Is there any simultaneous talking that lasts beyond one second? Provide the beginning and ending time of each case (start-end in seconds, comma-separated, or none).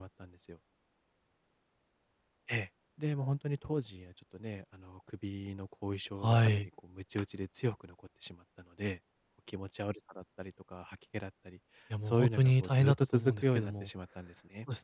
12.0-13.9